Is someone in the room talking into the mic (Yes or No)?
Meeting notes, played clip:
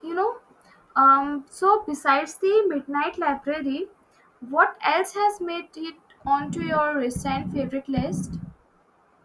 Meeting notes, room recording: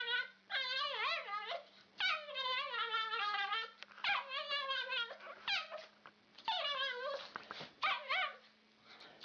No